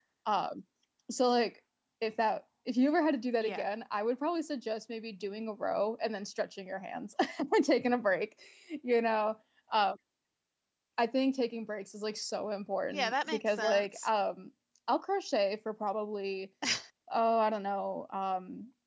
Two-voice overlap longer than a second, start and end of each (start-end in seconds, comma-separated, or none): 12.9-14.1